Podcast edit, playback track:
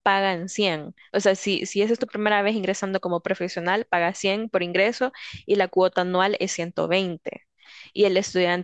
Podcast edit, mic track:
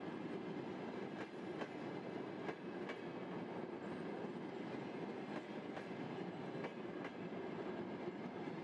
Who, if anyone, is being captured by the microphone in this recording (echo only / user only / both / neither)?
neither